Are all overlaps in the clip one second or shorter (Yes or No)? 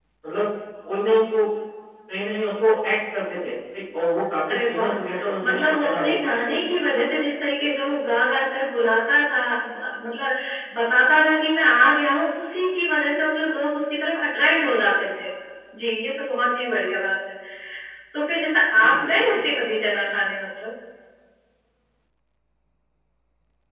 No